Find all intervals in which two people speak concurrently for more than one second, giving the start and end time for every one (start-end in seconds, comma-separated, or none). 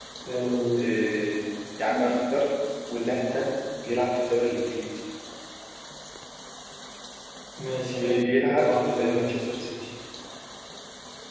8.0-9.2